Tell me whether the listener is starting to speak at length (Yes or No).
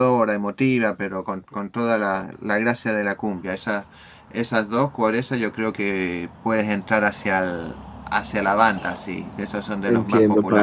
Yes